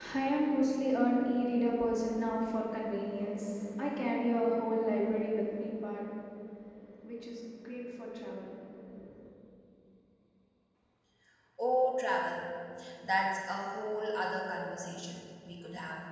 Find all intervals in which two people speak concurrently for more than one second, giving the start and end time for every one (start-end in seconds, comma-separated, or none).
none